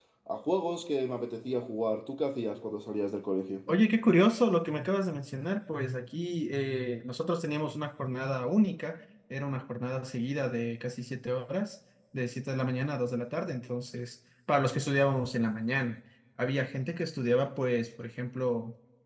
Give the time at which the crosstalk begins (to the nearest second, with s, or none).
none